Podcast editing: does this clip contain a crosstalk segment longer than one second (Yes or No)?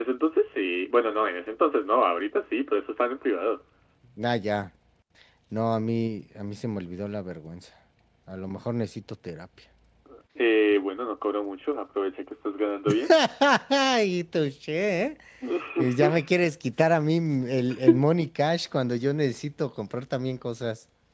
No